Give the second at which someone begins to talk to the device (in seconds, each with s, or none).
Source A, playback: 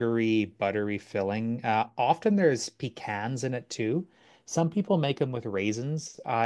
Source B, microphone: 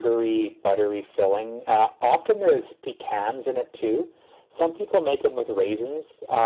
none